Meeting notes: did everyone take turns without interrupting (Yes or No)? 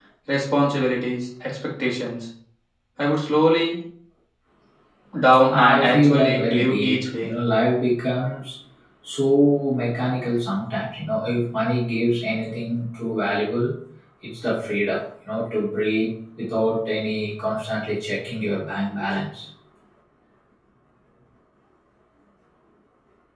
No